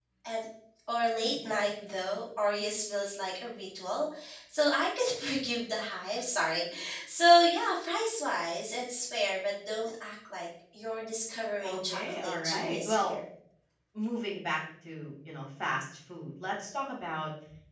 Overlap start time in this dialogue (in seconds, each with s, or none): 11.6 s